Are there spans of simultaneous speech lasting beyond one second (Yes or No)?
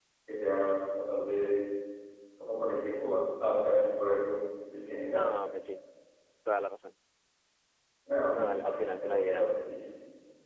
Yes